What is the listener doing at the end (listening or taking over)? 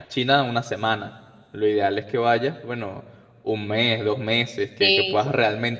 listening